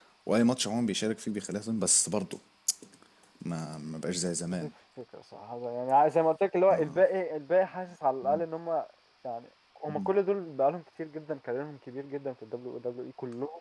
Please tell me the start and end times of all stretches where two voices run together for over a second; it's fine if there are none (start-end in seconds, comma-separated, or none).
none